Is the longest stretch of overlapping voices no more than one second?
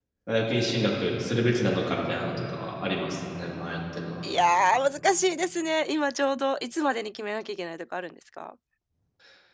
Yes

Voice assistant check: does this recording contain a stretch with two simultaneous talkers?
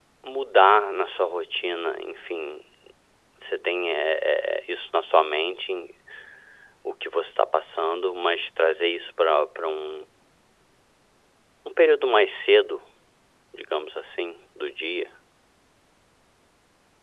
No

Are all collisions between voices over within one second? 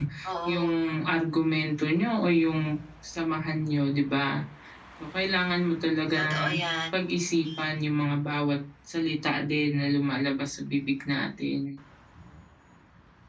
Yes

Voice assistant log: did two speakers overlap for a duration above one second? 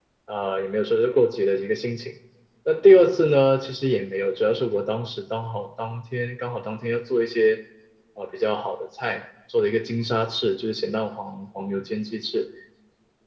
No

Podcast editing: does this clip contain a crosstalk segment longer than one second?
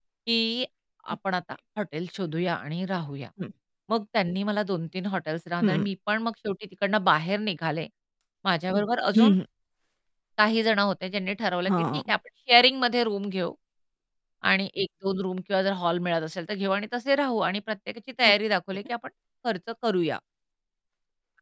No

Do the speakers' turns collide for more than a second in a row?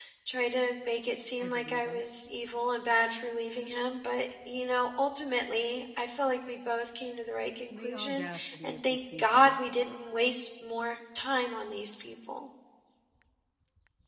Yes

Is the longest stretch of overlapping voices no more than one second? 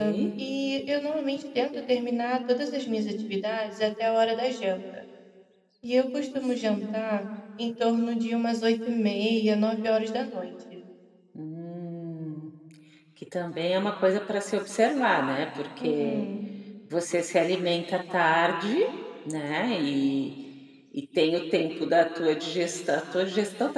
Yes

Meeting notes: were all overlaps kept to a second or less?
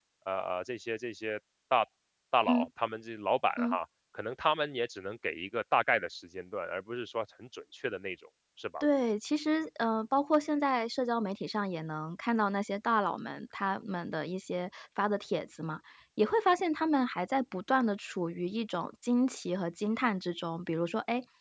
Yes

